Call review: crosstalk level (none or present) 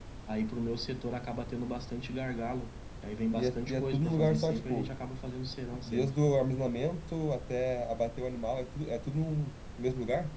present